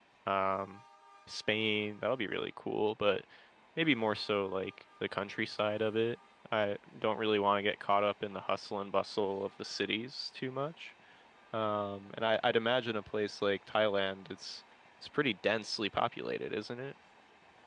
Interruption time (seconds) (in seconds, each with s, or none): none